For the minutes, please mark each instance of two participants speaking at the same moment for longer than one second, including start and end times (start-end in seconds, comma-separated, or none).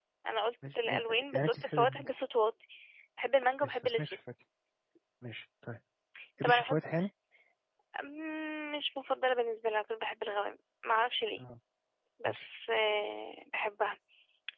0.8-2.1